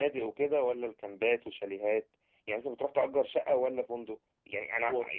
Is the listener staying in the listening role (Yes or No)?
Yes